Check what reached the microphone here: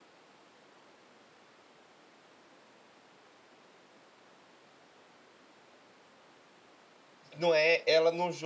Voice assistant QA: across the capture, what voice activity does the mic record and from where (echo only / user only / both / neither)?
user only